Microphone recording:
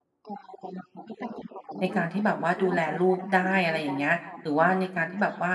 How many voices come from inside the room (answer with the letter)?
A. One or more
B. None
A